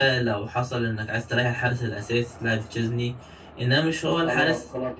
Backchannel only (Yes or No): No